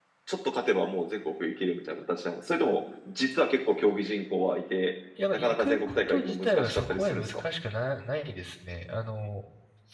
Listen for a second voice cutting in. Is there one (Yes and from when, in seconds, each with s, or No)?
Yes, from 5.2 s